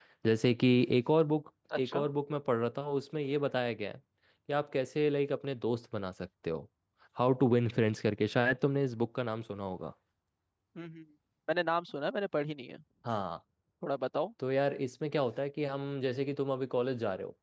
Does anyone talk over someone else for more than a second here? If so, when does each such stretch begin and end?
none

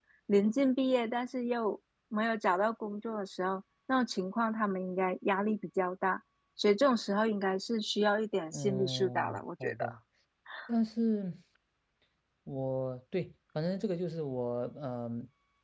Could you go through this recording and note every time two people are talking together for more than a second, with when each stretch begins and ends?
8.5-9.9

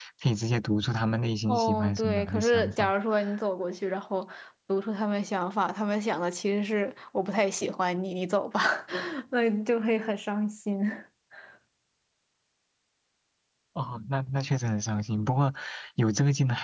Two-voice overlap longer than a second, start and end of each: 1.5-2.9

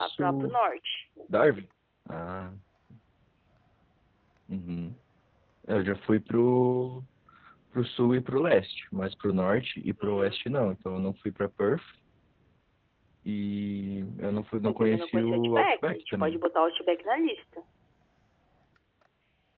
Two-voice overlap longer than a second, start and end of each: 14.7-16.4

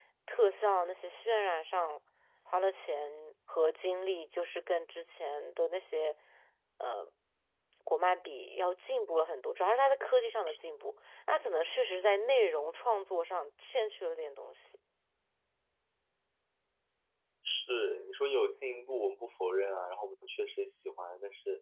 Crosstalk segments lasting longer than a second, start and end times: none

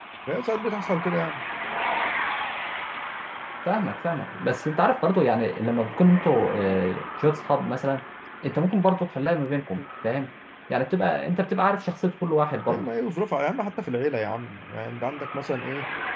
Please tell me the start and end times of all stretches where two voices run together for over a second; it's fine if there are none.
none

